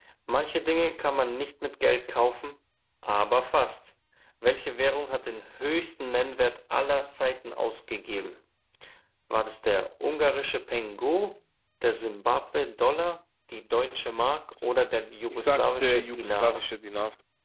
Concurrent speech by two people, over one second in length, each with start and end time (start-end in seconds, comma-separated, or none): 15.3-16.6